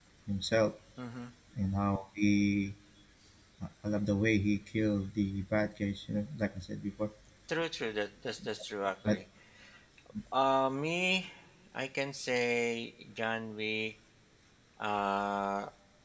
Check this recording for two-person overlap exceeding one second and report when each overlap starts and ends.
none

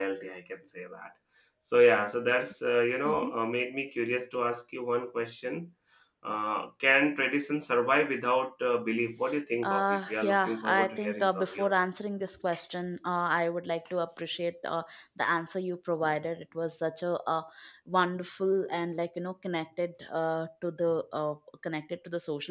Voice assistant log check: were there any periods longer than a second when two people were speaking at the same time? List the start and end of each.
9.6-11.7

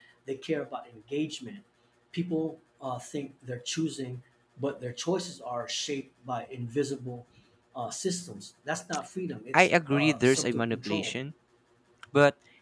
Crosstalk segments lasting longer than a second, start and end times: 9.5-11.1

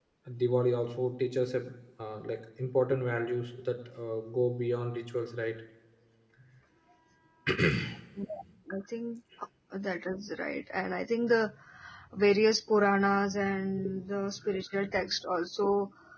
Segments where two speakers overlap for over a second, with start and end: none

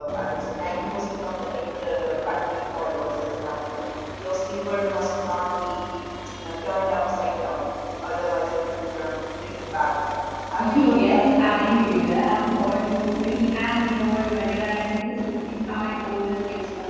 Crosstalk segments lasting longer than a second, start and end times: 10.6-12.0

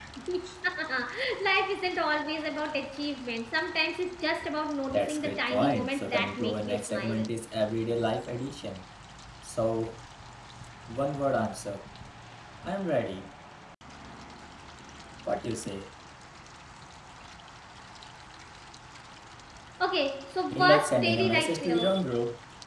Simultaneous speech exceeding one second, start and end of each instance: 4.9-7.3, 20.5-22.0

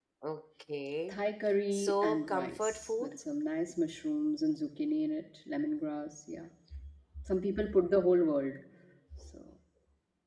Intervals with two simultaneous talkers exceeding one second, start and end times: 1.7-3.2

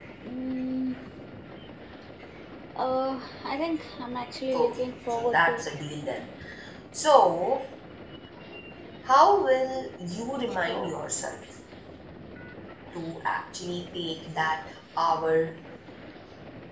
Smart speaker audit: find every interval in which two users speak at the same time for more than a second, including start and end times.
4.5-5.8

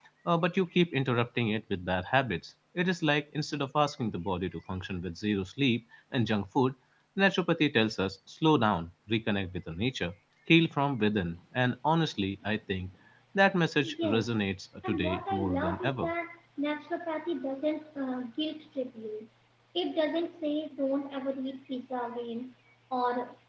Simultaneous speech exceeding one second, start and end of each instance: 14.8-16.1

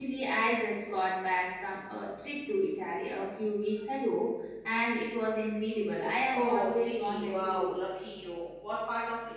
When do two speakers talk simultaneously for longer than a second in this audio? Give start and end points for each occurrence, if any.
6.3-7.8

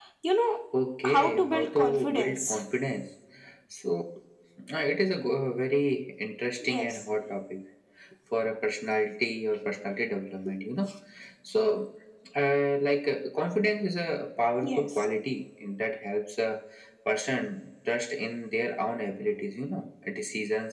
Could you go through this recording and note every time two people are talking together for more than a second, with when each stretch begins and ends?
1.0-2.6

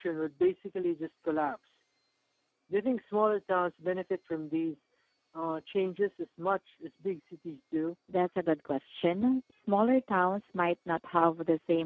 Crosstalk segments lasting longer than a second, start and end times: none

